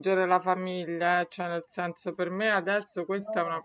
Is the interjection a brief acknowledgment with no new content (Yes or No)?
Yes